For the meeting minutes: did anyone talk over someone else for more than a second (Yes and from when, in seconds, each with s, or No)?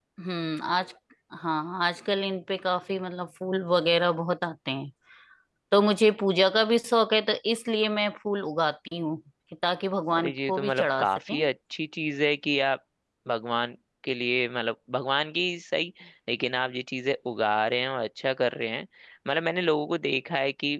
Yes, from 10.1 s